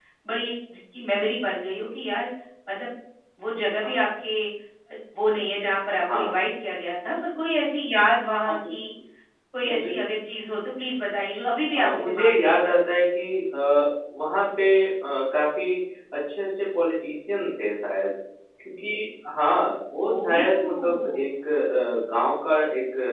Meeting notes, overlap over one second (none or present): present